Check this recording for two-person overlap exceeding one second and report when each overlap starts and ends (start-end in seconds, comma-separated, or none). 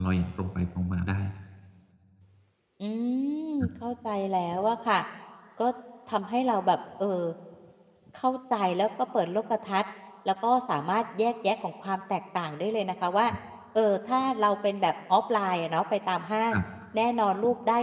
none